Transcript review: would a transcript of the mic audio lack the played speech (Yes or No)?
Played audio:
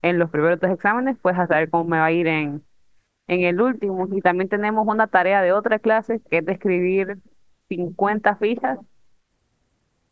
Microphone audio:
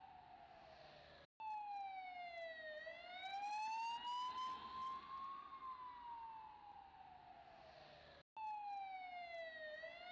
Yes